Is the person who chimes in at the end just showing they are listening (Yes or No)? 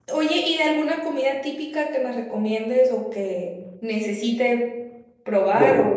Yes